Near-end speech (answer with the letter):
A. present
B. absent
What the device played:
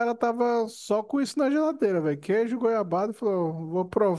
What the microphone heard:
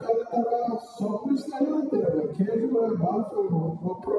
B